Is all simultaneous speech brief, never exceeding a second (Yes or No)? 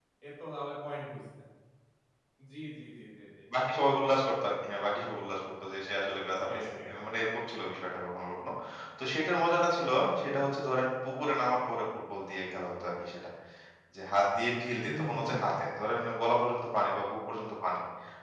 Yes